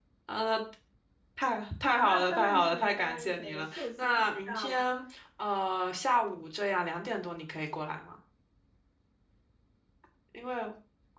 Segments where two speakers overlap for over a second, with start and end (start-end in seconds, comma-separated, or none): 1.9-4.8